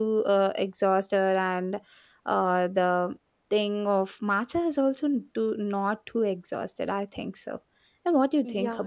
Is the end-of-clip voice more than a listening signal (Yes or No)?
Yes